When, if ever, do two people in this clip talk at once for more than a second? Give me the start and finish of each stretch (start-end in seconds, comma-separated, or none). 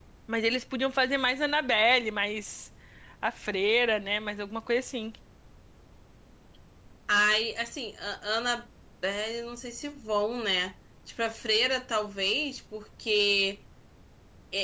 none